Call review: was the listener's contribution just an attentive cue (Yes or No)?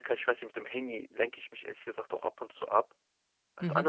No